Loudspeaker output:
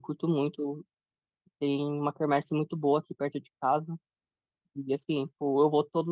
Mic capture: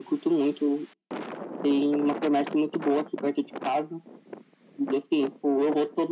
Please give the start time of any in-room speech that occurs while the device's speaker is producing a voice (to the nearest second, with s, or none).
none